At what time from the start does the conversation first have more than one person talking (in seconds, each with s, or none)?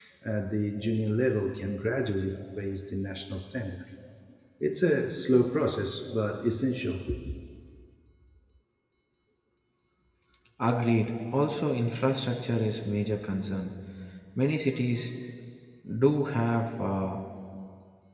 none